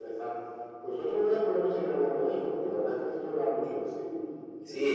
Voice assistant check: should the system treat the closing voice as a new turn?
Yes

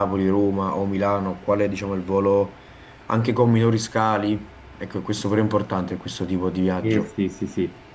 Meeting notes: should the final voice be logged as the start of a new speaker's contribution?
Yes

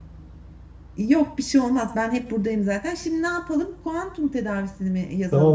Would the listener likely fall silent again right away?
No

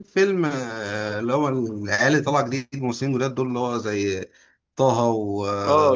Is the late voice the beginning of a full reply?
Yes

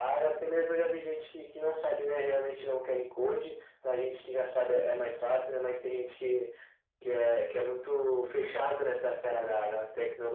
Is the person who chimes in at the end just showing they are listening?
No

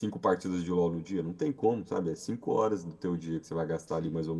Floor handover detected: No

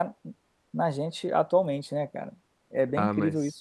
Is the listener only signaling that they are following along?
No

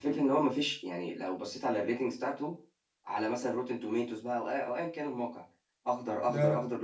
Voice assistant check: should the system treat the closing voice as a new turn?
No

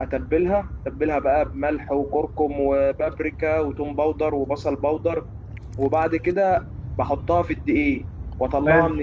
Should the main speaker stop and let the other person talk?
No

